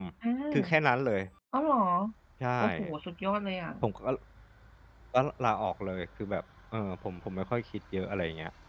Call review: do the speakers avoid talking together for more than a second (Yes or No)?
Yes